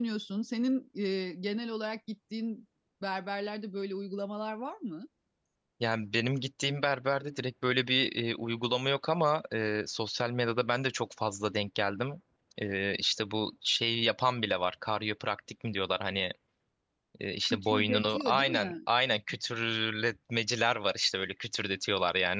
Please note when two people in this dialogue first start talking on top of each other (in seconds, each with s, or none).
17.5 s